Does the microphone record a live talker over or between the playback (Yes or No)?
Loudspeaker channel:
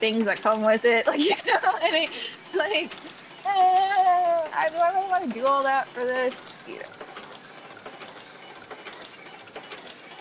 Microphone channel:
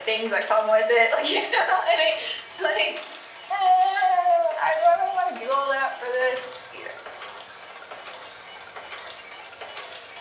No